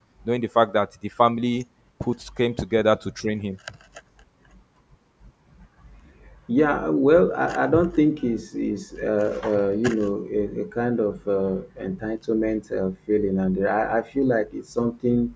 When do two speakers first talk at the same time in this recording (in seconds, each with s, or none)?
none